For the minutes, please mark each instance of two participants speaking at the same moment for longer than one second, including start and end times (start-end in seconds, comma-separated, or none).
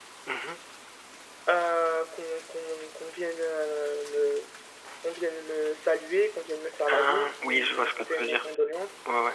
6.9-8.4